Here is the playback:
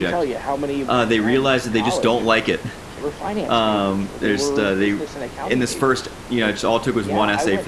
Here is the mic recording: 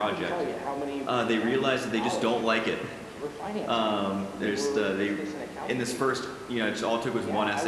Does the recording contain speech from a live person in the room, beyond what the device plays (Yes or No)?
No